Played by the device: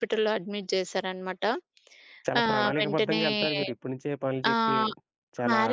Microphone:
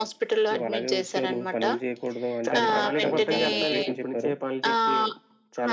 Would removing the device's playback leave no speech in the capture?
No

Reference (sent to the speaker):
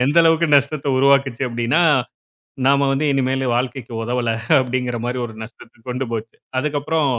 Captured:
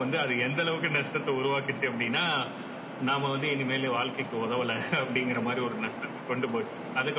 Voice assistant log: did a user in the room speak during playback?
No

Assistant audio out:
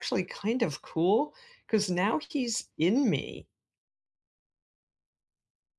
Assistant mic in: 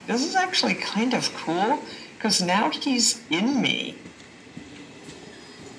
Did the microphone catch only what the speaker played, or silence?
Yes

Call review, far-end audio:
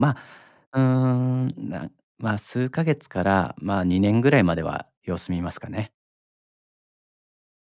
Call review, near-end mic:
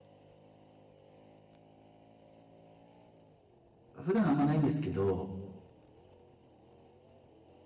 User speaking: Yes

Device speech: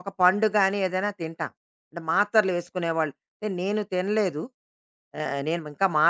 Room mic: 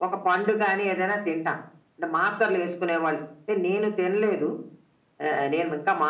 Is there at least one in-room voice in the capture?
No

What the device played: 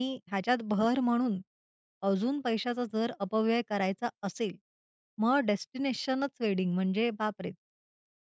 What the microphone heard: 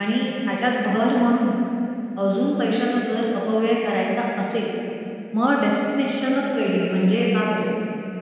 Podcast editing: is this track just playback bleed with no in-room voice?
Yes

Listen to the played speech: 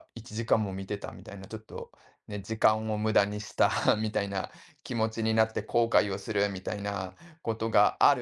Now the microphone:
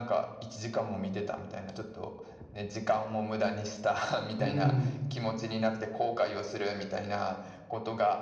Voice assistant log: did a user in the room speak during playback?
Yes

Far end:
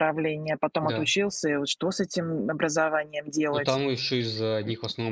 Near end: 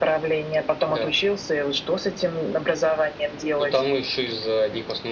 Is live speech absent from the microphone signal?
Yes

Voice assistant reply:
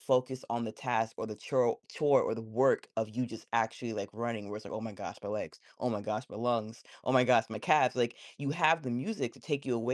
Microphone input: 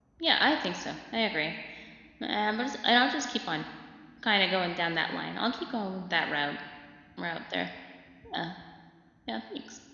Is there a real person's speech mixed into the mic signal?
Yes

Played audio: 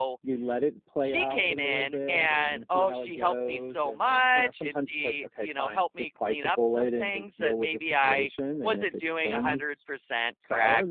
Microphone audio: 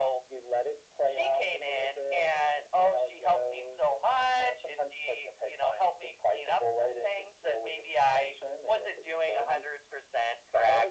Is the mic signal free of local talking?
Yes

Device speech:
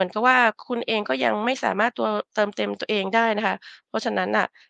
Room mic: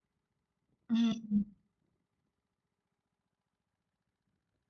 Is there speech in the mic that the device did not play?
Yes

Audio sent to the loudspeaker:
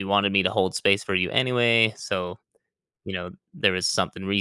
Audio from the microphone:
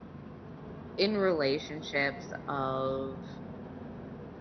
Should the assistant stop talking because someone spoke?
Yes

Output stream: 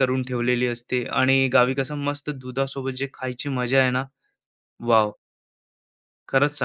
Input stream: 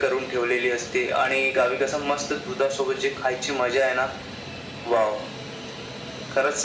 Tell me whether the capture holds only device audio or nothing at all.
Yes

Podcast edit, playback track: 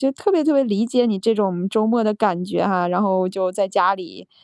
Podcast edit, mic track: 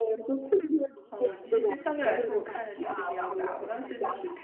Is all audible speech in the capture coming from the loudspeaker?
No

